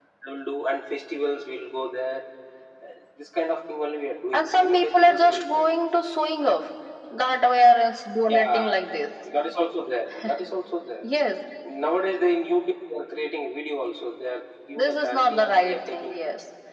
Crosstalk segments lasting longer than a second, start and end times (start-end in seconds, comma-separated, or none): 4.3-5.7, 14.8-16.1